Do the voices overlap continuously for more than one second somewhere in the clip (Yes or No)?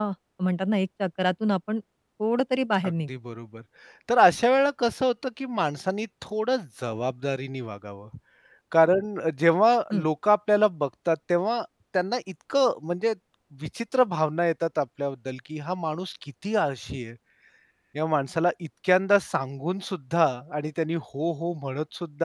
No